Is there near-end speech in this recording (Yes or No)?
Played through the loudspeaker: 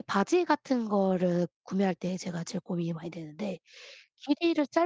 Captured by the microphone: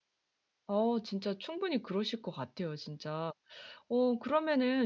Yes